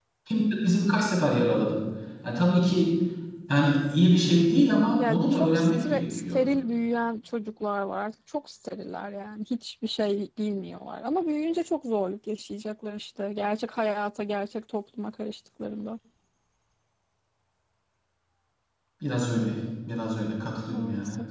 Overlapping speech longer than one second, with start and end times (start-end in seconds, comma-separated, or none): 5.1-6.4